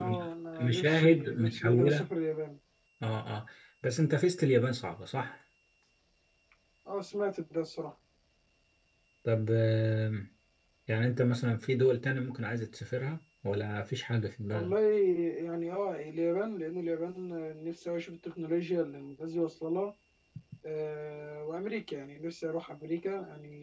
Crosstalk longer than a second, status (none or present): present